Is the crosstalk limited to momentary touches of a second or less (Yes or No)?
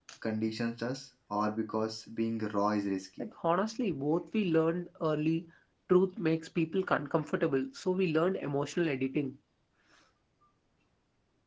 Yes